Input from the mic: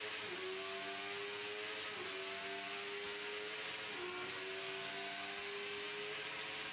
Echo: none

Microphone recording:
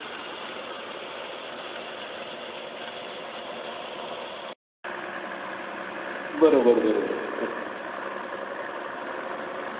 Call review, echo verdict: none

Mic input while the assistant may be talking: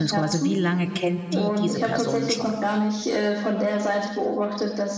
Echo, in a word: present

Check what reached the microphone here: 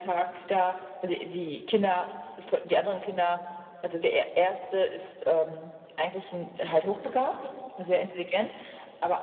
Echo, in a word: present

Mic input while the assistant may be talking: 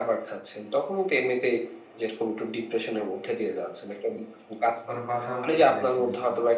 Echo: present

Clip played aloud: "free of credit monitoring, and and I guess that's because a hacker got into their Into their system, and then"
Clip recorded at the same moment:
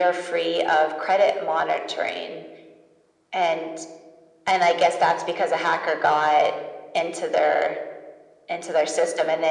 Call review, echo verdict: present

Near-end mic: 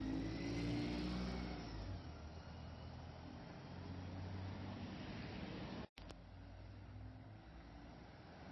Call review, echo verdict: none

